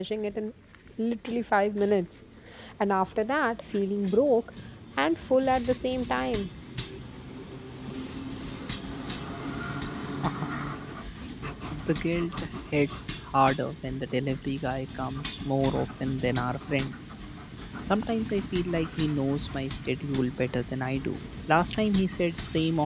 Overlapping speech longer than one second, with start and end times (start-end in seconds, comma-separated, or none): none